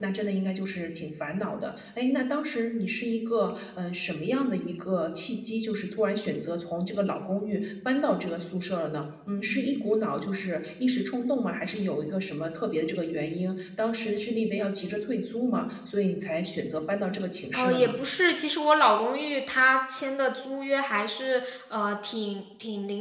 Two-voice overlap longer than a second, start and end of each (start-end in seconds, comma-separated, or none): none